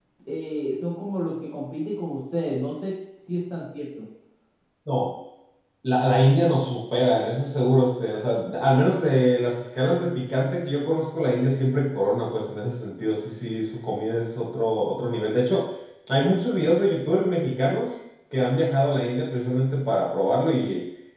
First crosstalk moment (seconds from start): none

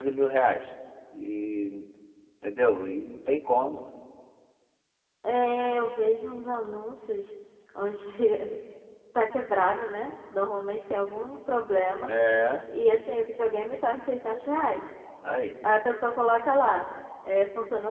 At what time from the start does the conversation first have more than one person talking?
none

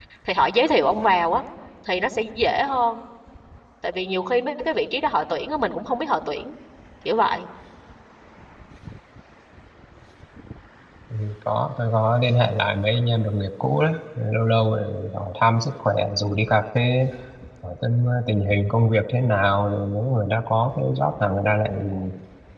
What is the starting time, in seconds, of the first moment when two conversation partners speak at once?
none

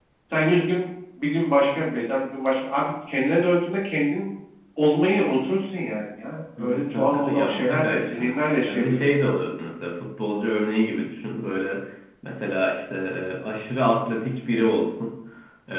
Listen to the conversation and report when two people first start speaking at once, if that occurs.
6.6 s

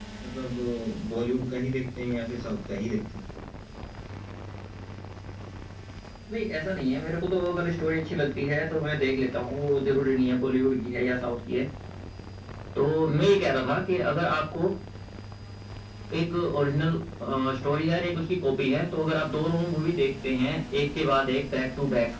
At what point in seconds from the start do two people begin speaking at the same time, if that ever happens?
none

